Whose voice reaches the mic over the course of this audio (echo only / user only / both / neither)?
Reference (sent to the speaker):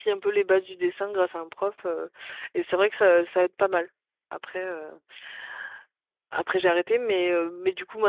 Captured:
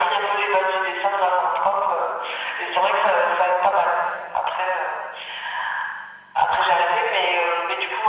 echo only